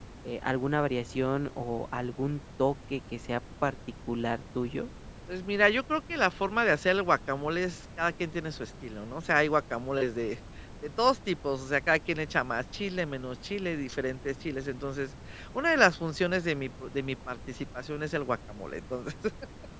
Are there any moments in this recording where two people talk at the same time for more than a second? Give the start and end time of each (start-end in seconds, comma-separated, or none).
none